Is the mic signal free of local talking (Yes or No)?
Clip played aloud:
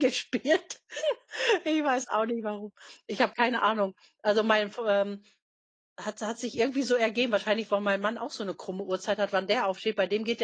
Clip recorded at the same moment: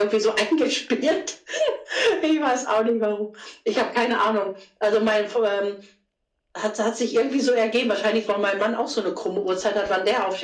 Yes